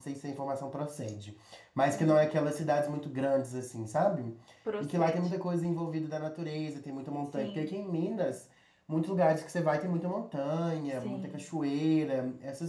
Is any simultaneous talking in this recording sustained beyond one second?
No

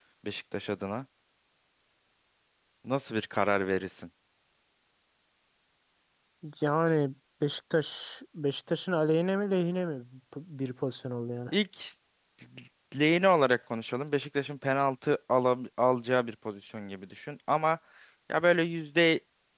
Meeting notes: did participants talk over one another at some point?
No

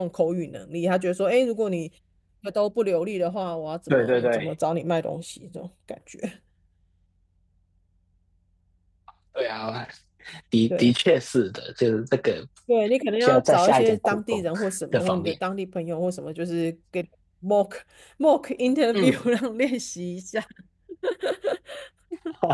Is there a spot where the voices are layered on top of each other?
Yes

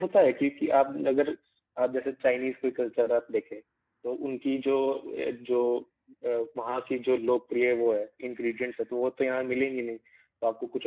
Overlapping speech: No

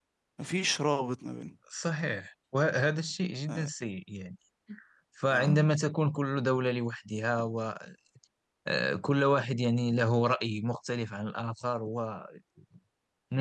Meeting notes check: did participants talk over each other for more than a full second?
No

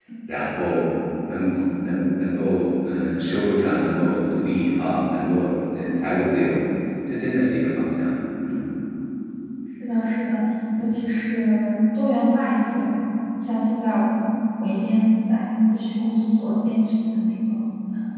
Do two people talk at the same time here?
No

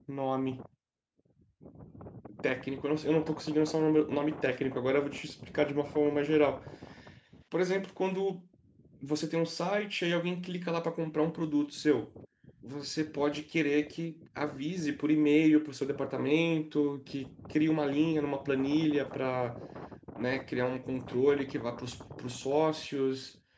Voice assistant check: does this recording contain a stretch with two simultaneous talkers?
No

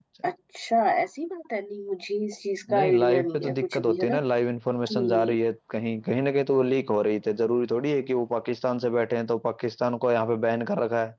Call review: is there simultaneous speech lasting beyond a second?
Yes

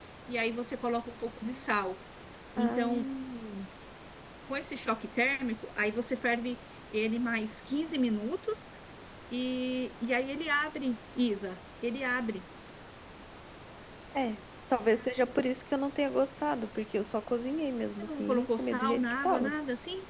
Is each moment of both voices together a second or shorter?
No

